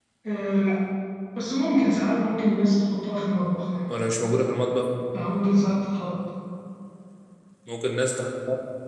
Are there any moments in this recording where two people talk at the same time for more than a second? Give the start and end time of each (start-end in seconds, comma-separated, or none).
none